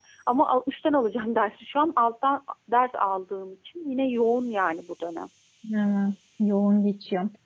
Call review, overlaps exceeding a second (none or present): none